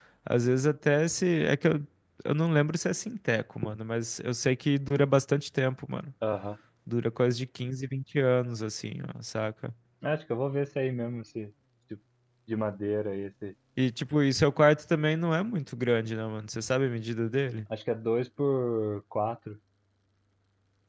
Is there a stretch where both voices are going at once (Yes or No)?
No